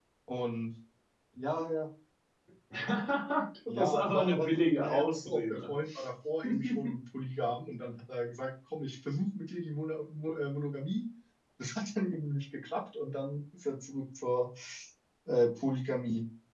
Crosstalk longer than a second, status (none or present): present